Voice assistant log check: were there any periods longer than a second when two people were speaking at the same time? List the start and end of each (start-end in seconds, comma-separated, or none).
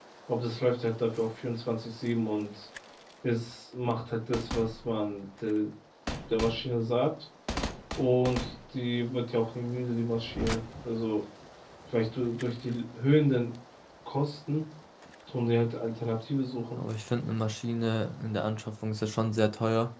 none